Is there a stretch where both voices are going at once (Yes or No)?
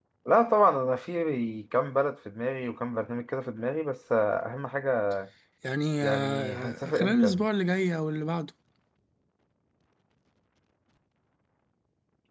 Yes